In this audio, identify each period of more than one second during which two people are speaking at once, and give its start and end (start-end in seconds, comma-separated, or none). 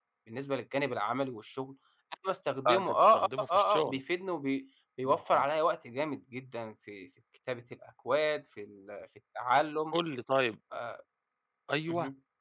2.7-4.0